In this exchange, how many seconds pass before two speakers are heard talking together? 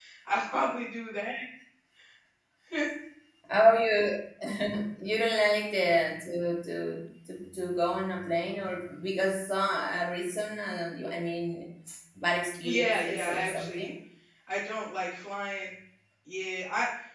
12.6 s

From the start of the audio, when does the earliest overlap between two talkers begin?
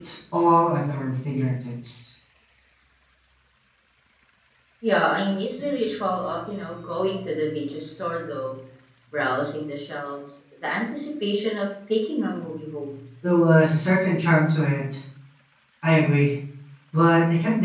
none

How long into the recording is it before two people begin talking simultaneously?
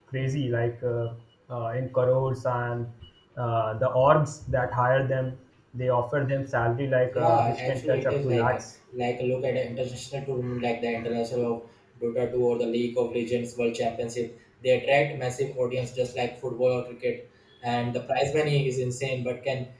7.1 s

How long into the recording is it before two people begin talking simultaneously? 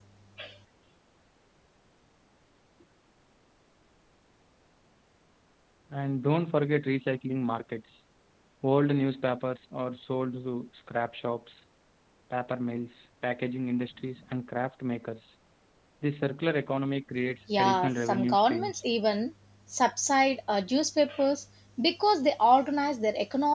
17.5 s

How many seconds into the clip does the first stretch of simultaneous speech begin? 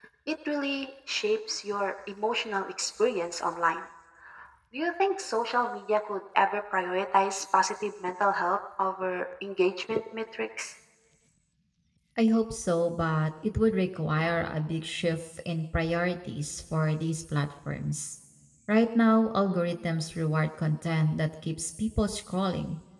none

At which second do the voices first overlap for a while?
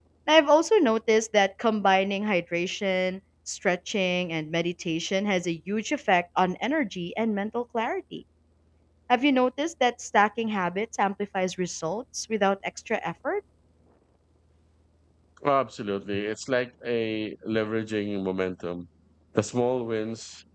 none

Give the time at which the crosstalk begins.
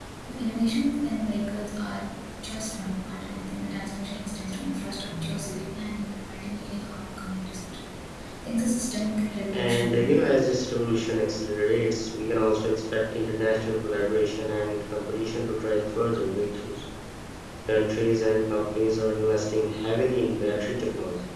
9.5 s

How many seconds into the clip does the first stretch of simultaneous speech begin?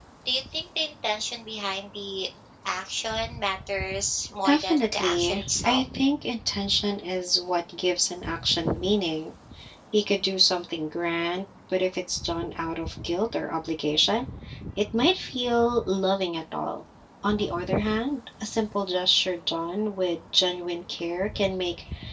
4.4 s

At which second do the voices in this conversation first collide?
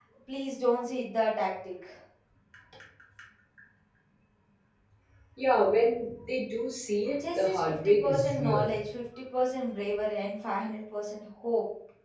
7.2 s

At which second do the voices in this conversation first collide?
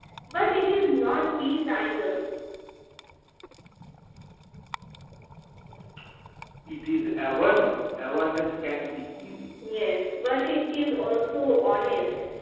none

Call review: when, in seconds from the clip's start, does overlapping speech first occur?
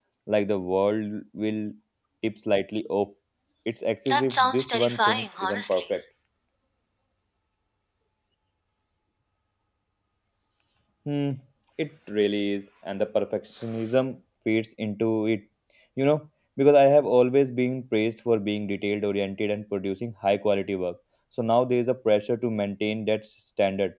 4.1 s

